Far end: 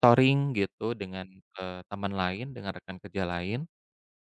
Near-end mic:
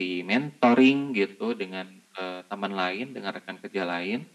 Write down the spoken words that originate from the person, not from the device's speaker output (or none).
none